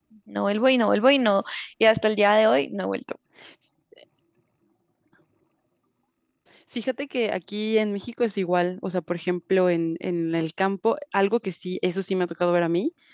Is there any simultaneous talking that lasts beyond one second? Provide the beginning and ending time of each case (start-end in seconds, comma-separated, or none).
none